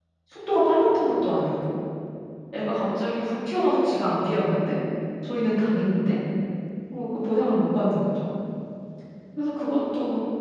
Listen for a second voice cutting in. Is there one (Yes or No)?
No